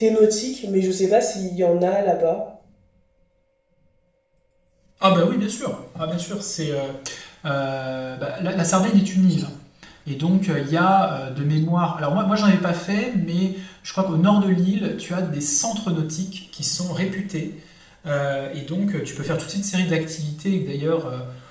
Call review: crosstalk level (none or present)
none